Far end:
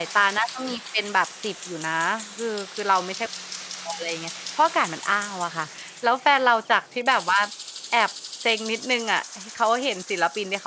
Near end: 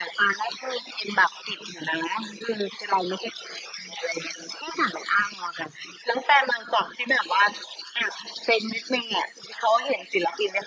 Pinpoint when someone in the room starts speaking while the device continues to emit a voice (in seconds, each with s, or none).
none